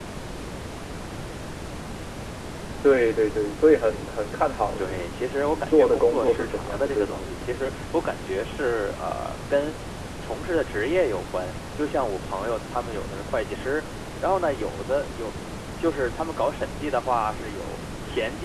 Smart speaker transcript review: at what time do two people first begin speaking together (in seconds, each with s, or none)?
4.8 s